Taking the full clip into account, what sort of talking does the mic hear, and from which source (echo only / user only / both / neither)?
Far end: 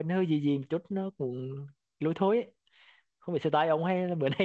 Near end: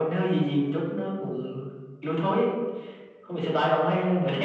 echo only